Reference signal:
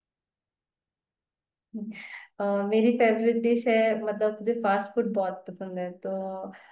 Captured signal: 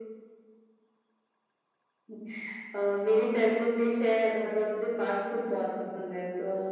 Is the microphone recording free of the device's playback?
No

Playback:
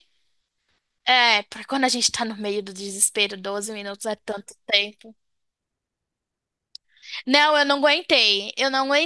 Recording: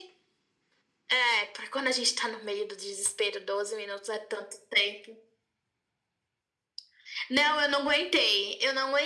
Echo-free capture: No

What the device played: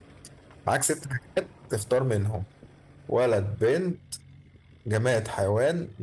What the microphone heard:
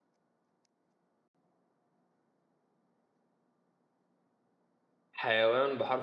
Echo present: No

